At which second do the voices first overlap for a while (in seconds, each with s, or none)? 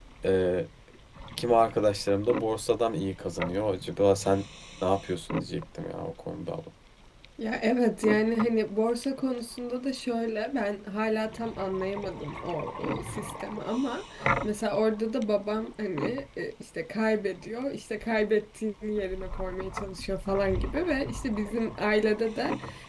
none